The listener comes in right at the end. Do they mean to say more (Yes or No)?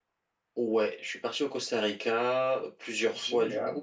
No